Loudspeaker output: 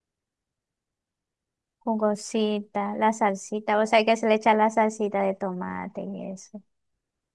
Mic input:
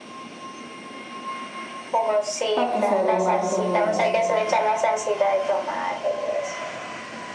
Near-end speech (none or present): present